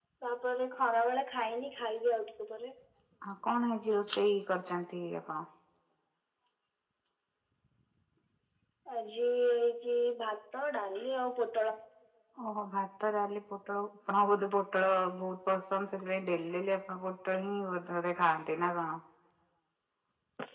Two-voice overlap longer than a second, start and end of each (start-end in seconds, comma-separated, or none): none